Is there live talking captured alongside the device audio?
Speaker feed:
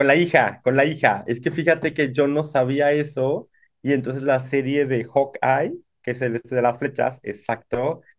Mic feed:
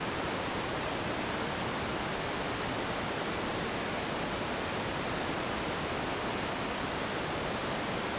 No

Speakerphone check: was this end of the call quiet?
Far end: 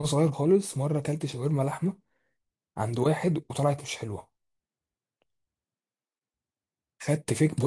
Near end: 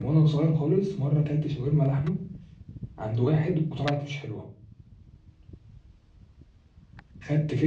Yes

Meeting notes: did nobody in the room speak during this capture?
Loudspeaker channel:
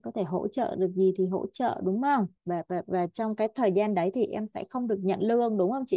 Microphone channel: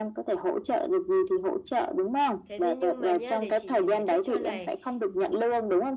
No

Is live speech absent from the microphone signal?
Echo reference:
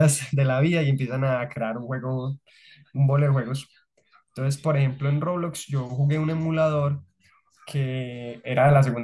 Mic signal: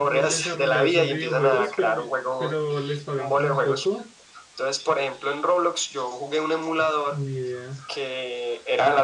No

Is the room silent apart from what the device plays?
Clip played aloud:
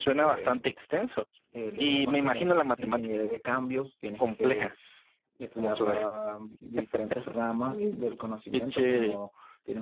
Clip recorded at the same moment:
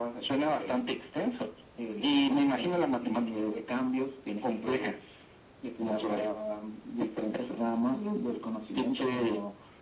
Yes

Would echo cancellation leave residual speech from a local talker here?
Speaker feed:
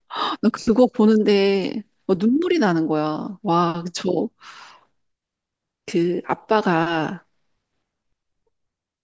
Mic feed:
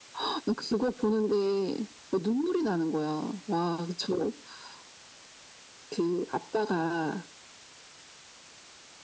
No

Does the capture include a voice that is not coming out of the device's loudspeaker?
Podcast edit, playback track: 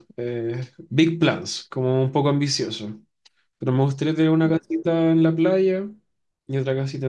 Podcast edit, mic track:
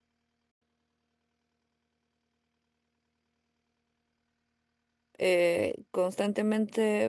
Yes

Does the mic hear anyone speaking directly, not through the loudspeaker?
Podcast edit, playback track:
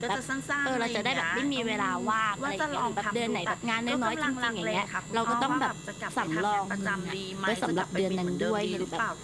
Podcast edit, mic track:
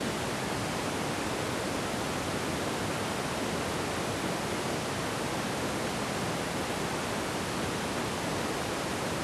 No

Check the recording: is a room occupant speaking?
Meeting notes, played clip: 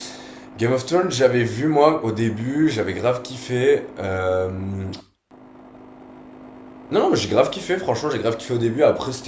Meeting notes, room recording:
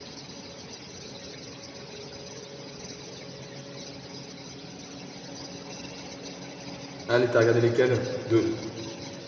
Yes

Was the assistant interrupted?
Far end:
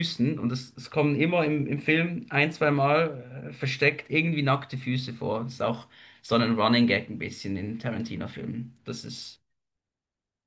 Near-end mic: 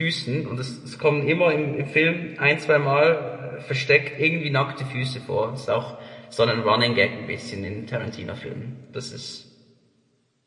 No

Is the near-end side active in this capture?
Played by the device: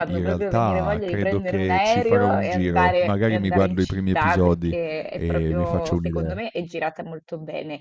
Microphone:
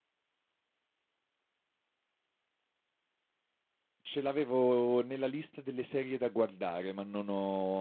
Yes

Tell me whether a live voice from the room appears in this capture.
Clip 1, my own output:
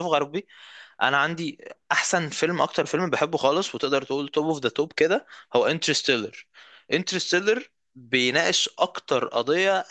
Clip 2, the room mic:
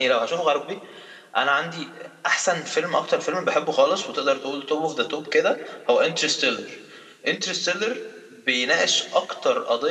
No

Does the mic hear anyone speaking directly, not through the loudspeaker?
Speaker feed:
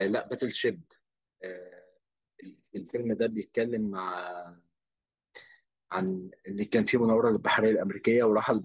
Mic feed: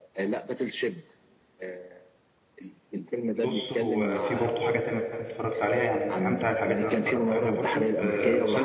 Yes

